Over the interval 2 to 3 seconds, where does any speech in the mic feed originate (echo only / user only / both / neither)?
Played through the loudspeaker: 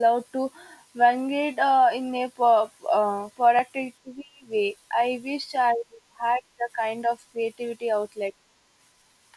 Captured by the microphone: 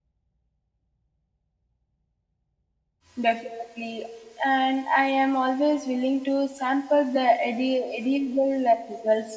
neither